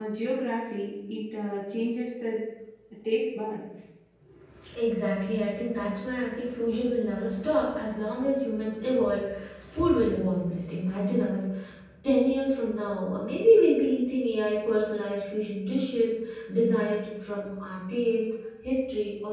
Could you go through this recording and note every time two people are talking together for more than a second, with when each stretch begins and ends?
none

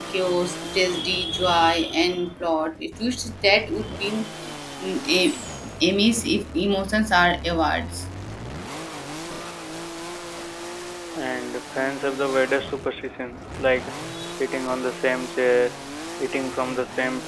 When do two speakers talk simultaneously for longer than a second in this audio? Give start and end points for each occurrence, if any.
none

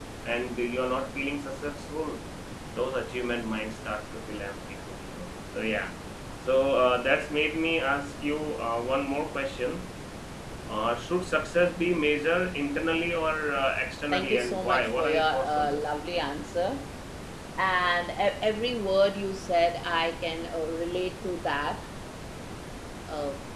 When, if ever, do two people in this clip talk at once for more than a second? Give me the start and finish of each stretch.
14.1-15.8

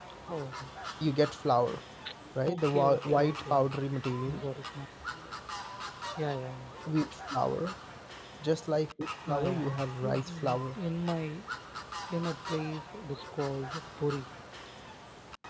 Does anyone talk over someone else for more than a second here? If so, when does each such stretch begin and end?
2.5-3.7, 9.3-10.8

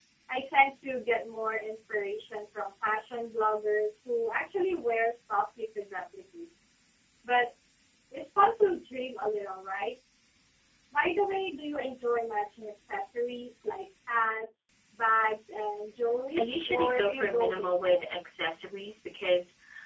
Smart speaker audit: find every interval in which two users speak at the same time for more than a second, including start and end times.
16.4-18.0

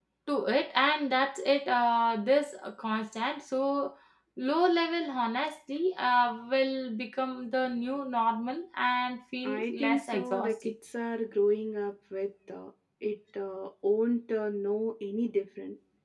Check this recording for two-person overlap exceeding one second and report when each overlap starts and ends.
9.4-10.7

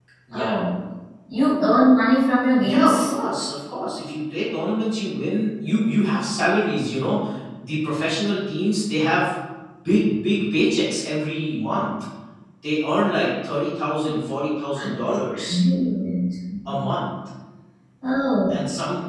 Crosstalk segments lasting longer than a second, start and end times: none

